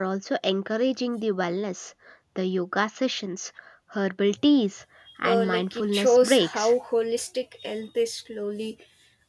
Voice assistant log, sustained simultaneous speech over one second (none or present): present